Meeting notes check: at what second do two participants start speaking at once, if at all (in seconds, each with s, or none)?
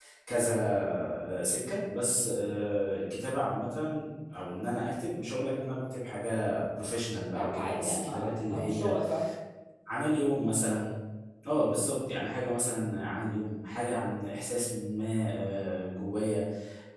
7.3 s